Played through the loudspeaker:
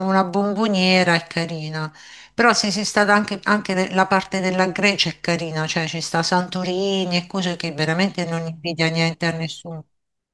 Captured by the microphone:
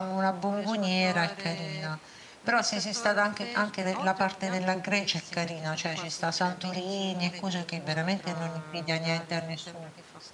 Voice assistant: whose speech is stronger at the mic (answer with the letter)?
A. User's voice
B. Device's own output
B